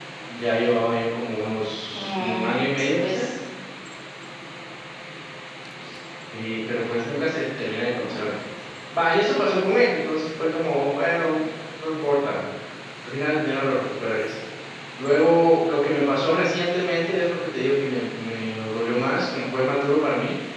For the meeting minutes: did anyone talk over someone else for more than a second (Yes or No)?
Yes